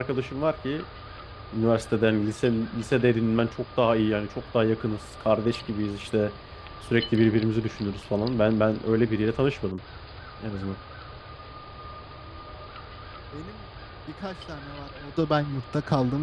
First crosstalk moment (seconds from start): none

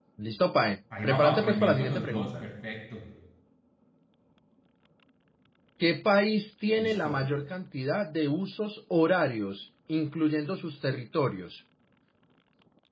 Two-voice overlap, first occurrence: 1.0 s

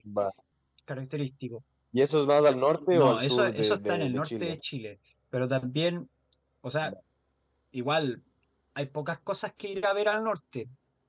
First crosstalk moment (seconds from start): 2.9 s

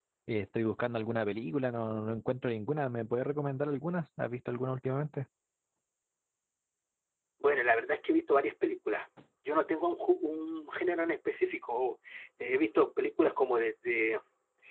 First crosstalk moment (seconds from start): none

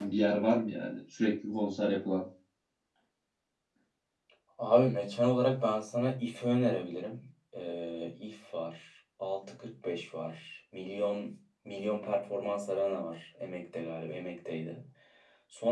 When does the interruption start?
none

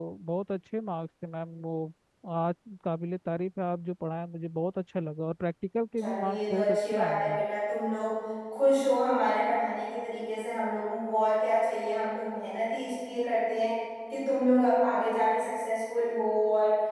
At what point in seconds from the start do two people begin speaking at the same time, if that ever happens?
6.0 s

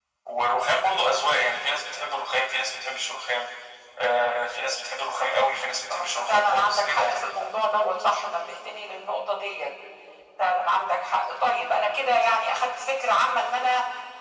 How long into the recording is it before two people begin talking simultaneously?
5.9 s

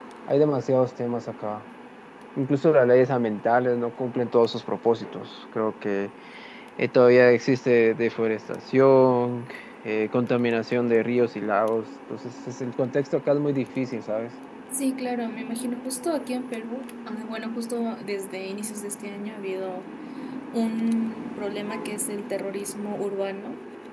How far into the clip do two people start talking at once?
none

